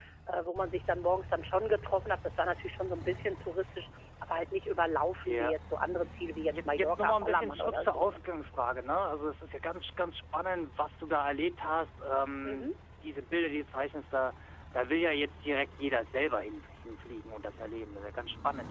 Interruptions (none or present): present